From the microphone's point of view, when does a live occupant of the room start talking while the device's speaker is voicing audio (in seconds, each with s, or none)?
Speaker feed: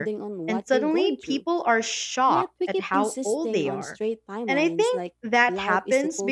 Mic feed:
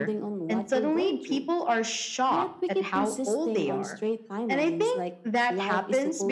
none